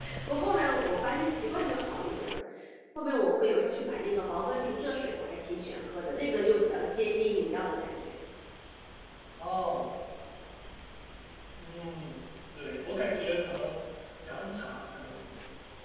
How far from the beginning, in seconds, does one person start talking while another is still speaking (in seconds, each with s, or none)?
none